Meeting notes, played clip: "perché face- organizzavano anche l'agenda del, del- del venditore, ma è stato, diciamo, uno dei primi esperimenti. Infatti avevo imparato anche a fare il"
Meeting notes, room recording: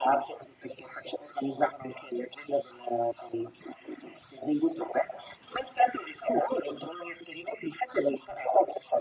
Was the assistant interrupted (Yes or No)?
No